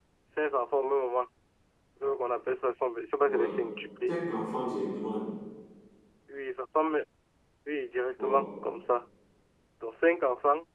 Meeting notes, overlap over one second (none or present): none